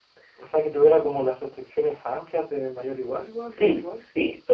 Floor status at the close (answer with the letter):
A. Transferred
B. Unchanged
A